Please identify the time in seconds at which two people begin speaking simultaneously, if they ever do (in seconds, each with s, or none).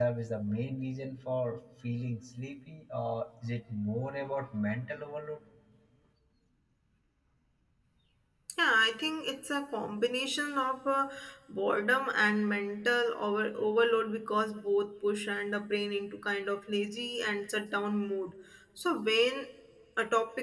none